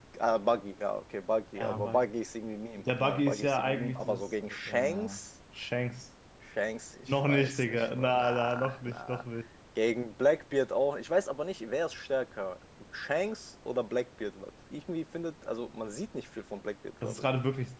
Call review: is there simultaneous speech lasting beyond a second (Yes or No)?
Yes